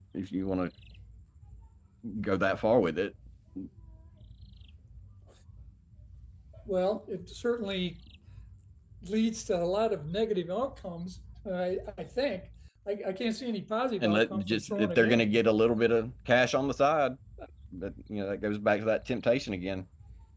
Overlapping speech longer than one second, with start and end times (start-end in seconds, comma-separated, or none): 14.0-15.4